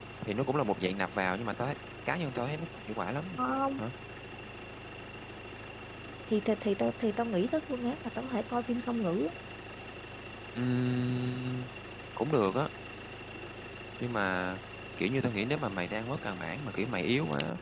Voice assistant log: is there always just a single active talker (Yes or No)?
Yes